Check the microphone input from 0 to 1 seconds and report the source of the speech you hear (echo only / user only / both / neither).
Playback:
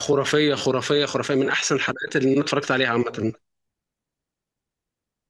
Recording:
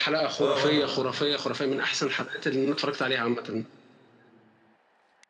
both